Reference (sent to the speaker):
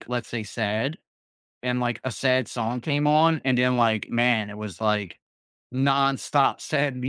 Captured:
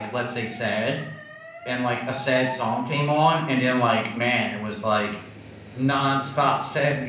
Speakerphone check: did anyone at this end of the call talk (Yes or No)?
No